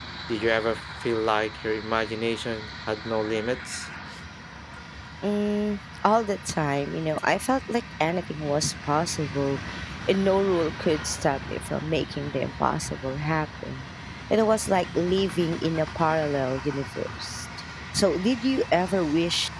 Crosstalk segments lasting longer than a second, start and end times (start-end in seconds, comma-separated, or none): none